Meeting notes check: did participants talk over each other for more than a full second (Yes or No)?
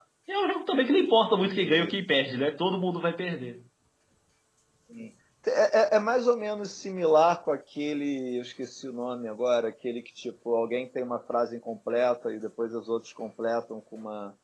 No